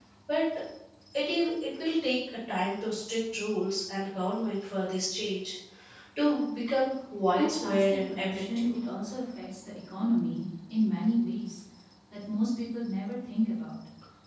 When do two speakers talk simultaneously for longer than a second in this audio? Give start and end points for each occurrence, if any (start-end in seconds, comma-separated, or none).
7.4-8.7